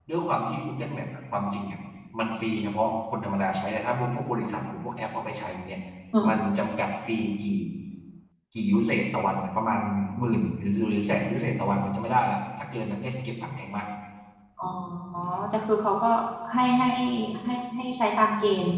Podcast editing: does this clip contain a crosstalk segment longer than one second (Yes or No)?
No